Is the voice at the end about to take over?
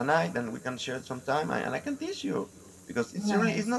No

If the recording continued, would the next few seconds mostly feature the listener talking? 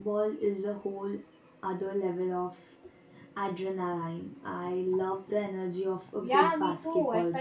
Yes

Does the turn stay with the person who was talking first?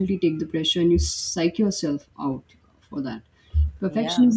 Yes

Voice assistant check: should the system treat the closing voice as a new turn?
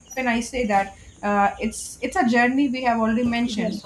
No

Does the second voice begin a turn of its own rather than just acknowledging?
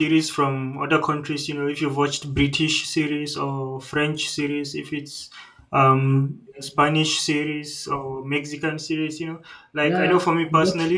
Yes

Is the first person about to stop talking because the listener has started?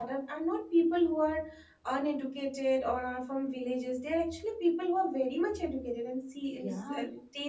No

